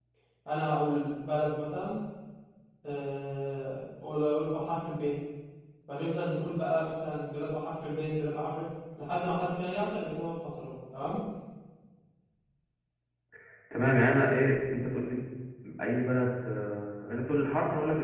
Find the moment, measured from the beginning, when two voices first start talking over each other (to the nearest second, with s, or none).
none